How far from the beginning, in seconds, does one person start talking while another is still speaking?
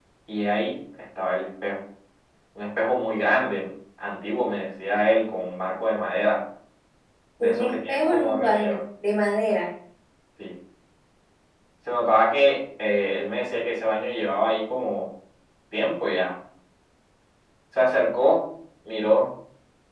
7.4 s

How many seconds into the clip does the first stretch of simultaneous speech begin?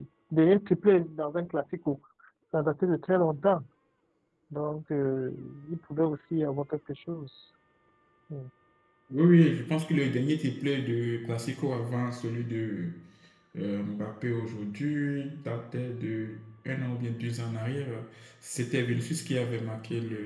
none

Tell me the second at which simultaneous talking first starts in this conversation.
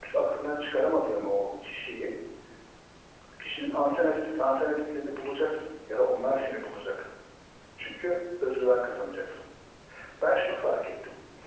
none

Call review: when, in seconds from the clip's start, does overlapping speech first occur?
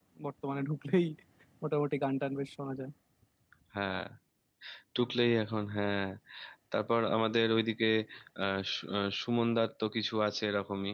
none

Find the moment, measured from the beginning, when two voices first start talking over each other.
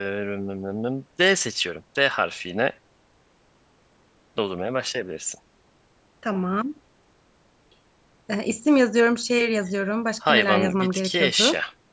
10.2 s

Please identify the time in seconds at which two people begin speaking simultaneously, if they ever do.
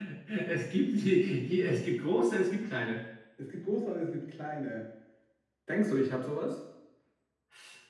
none

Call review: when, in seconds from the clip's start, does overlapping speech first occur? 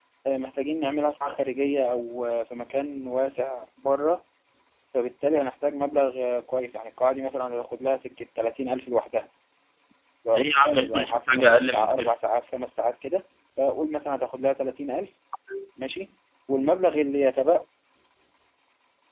10.3 s

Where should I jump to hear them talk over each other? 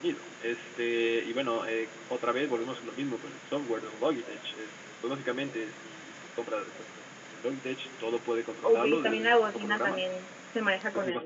8.6 s

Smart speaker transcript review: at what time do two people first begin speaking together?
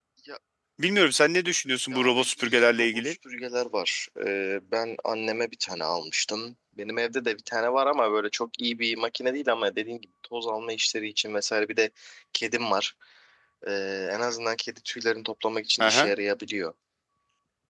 1.9 s

